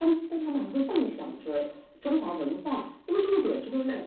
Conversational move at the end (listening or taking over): listening